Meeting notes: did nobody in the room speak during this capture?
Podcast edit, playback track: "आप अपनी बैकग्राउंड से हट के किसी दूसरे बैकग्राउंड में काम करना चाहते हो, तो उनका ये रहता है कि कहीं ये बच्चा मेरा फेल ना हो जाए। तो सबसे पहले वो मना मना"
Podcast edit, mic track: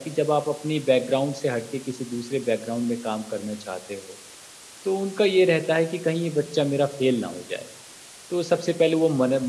Yes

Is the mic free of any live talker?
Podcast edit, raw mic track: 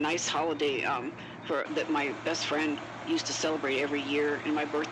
Yes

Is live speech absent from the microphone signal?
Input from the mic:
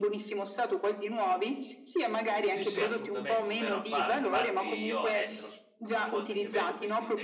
No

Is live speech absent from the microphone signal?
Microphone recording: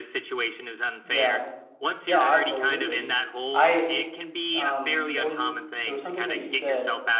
No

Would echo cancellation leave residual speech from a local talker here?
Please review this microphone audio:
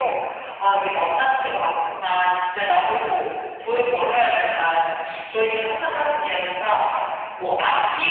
No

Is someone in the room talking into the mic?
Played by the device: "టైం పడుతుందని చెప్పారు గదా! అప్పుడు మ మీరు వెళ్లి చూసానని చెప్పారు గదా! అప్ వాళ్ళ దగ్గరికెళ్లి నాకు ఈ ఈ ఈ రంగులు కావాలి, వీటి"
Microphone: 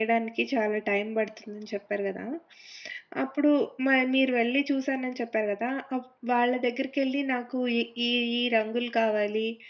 No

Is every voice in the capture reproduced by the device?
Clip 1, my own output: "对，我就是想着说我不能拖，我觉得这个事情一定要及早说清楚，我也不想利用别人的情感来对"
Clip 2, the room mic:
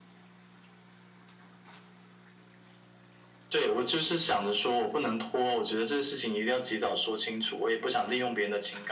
Yes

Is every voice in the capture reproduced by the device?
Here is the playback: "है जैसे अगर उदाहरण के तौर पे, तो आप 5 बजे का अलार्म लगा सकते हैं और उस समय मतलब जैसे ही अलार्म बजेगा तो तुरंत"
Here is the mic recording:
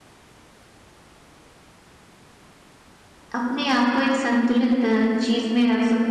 No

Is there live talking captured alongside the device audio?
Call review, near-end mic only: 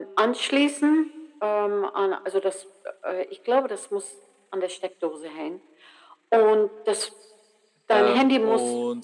Yes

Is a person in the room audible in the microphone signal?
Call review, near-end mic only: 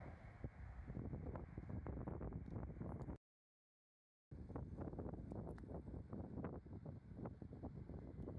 No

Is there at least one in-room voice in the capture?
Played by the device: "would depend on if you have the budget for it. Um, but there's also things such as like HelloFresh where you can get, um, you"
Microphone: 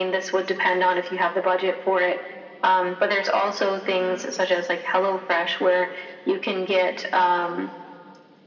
Yes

